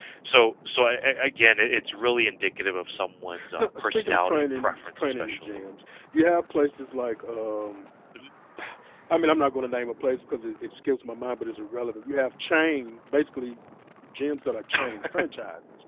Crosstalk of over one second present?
Yes, from 3.6 s

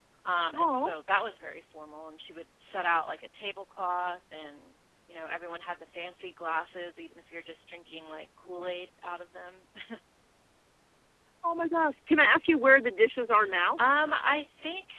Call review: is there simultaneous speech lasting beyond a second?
No

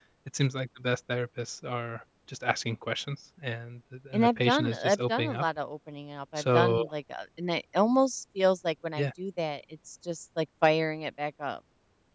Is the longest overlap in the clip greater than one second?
Yes, from 4.1 s

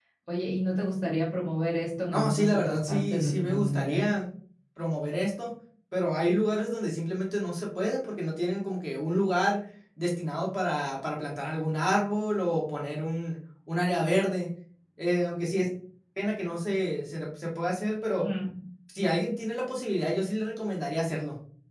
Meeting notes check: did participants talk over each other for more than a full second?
Yes, from 2.1 s

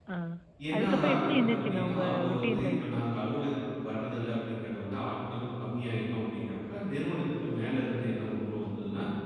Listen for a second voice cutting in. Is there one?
Yes, from 0.7 s

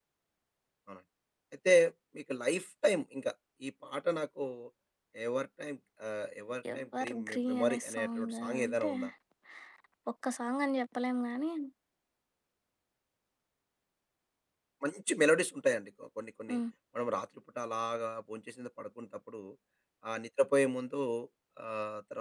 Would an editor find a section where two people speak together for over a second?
Yes, from 6.7 s

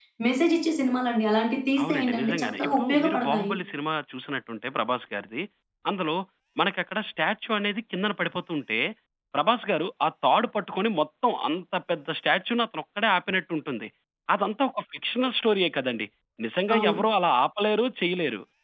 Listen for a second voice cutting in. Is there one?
Yes, from 1.8 s

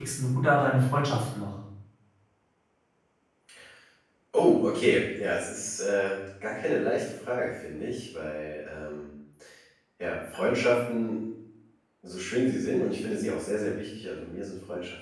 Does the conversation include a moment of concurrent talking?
No

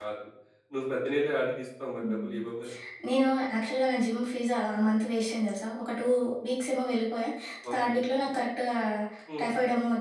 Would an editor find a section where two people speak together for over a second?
No

